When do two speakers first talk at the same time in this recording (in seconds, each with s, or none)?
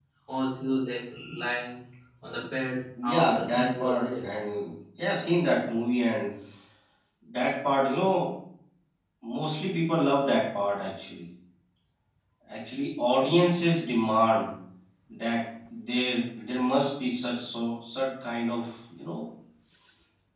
3.0 s